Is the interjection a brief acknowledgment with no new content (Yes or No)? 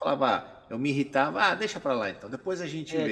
No